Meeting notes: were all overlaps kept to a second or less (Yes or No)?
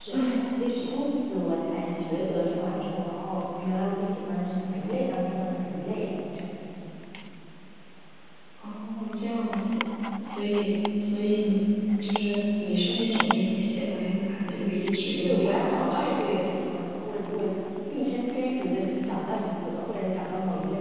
No